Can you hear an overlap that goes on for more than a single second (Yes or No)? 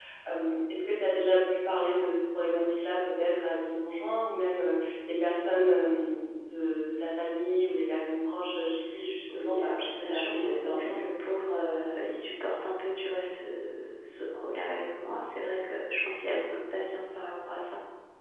Yes